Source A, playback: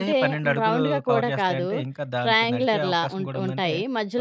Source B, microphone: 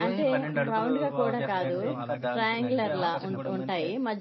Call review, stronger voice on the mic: echo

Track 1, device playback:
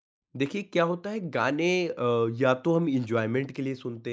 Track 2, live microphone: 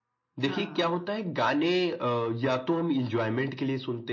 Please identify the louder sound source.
echo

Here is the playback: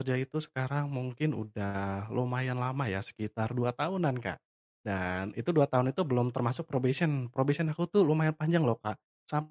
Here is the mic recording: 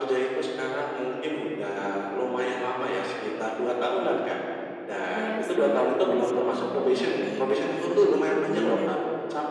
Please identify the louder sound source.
echo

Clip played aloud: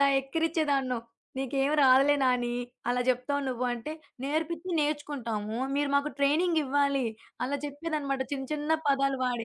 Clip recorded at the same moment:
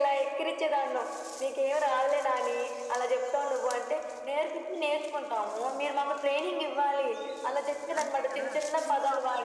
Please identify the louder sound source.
echo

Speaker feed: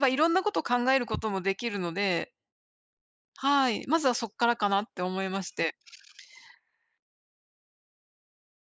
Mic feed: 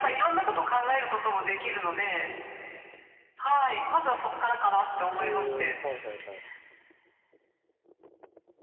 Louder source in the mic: echo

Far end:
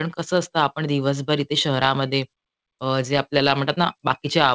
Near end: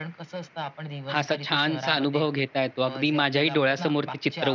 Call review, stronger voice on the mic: user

